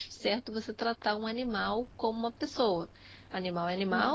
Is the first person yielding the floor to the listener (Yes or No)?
No